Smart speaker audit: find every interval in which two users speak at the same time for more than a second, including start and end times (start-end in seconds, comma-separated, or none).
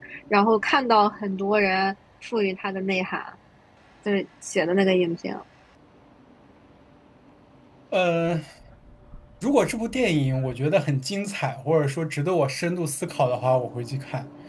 none